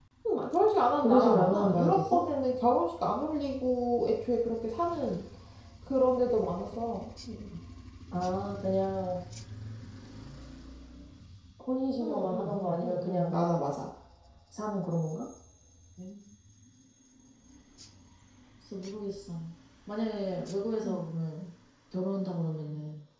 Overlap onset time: 1.0 s

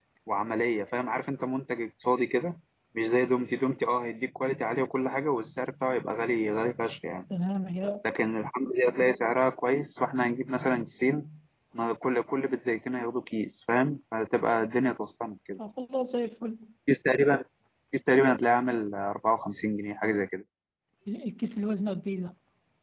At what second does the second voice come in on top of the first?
none

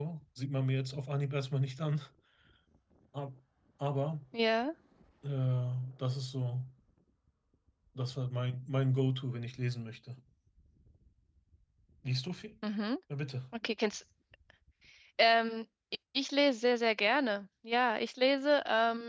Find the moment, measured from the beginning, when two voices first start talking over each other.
none

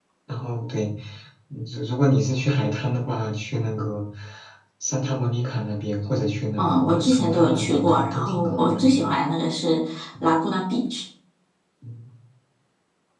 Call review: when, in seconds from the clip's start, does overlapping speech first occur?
6.6 s

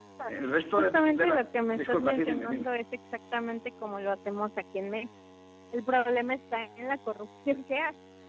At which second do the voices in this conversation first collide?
0.8 s

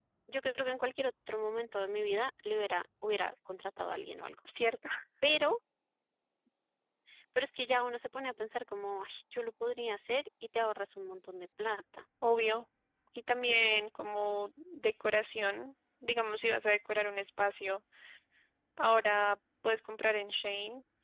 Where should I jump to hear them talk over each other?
none

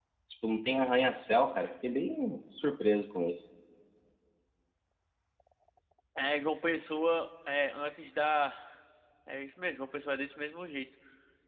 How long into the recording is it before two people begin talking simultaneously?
none

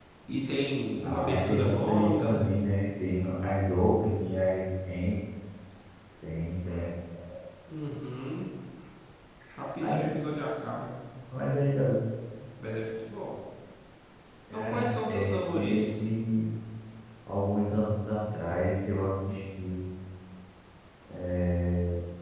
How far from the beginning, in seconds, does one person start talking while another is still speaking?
1.0 s

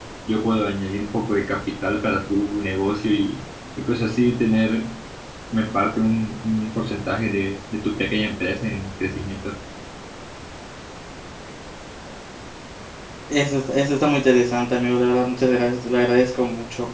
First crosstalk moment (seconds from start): none

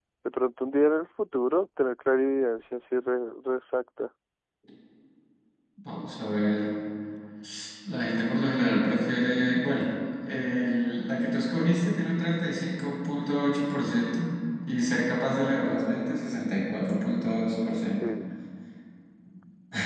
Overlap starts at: none

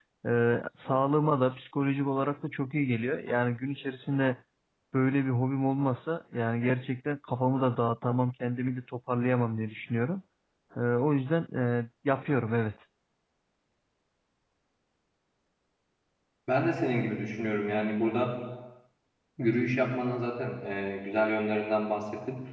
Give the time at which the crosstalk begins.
none

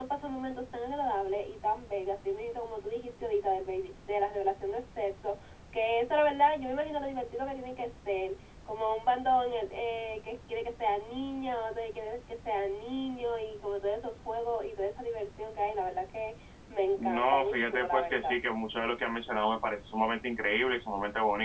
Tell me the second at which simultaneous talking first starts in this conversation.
17.0 s

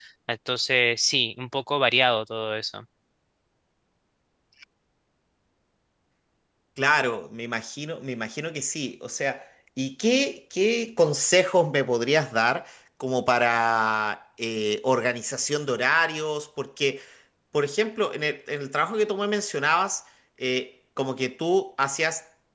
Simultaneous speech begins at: none

